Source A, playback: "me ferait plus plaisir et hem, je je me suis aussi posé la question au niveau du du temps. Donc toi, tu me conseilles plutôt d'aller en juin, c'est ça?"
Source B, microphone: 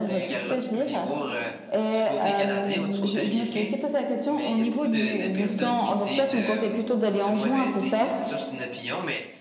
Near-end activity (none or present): present